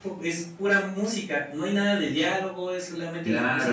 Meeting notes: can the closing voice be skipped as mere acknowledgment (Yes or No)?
No